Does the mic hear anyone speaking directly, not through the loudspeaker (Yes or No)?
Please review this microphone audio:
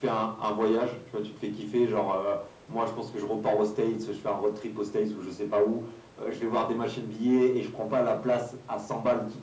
No